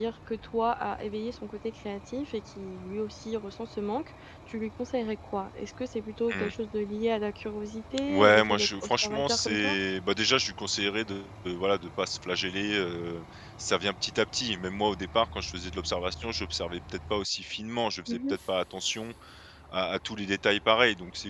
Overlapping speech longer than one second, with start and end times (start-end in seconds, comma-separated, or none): 8.1-9.8